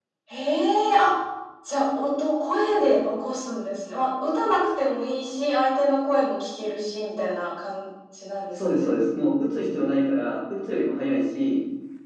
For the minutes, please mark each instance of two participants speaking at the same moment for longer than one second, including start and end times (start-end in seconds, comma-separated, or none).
none